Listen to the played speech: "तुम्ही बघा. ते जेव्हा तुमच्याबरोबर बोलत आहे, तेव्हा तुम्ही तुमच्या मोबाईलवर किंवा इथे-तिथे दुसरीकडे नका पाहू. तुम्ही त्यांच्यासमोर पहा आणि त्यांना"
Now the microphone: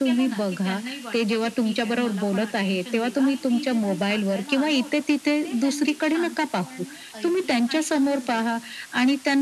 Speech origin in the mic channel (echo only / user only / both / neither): both